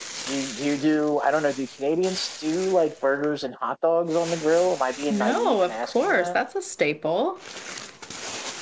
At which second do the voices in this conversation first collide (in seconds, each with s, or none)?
5.1 s